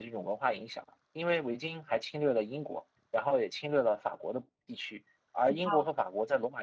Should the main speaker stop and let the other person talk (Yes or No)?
No